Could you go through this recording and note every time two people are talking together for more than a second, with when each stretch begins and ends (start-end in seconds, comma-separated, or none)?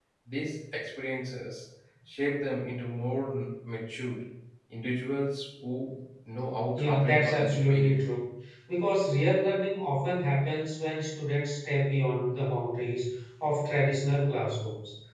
6.8-8.2